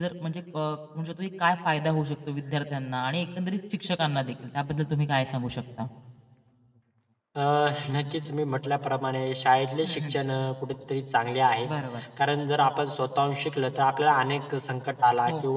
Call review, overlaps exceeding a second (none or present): none